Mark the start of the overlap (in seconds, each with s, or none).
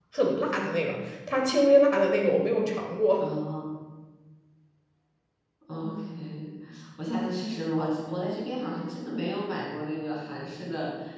none